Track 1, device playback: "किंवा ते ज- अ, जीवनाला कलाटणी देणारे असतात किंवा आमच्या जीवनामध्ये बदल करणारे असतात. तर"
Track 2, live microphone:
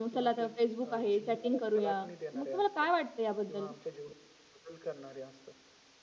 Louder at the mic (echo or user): user